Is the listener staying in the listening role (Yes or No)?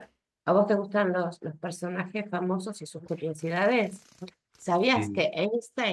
Yes